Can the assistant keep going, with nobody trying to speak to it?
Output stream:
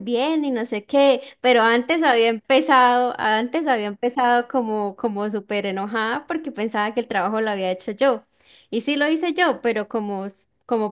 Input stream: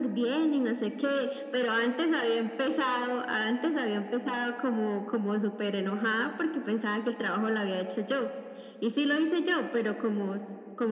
Yes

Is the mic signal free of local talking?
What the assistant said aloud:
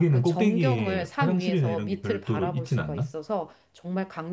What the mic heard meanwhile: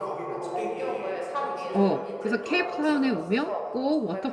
No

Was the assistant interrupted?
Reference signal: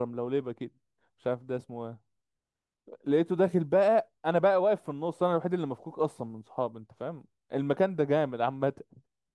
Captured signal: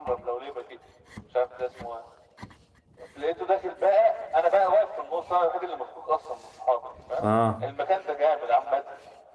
Yes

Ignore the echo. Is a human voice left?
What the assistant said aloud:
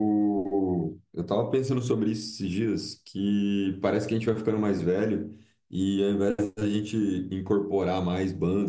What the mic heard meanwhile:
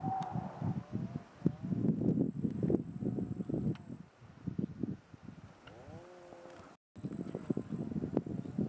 No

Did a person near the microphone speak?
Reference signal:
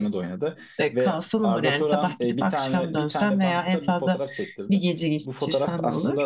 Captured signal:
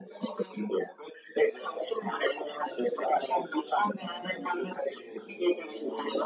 Yes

